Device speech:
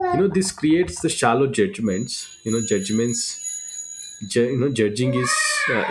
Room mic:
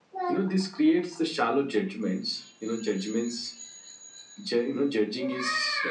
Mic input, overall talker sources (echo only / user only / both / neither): echo only